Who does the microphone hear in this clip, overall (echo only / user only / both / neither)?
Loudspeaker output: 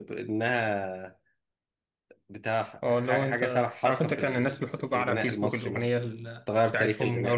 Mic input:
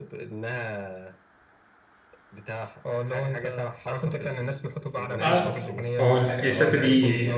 both